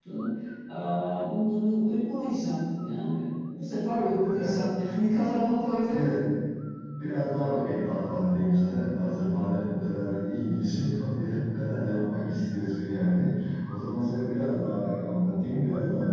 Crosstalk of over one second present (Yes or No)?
No